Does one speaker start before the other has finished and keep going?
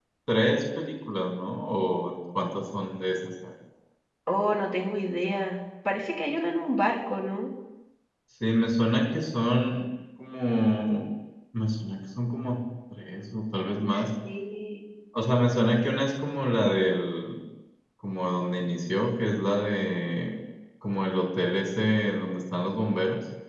No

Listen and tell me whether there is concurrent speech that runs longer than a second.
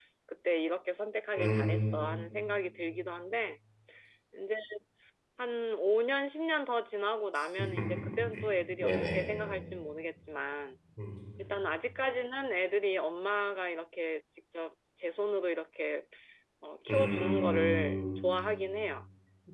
Yes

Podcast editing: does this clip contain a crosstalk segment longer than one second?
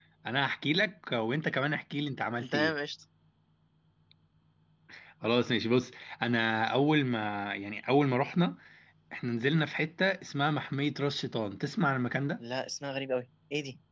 No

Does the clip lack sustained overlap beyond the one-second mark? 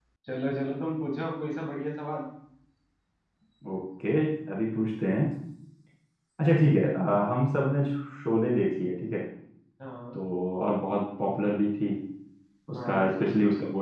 Yes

